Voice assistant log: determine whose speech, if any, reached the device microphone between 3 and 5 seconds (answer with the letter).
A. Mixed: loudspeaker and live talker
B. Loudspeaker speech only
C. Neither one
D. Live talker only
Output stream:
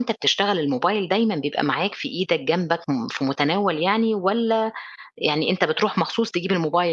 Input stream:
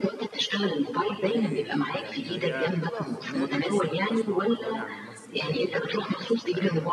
A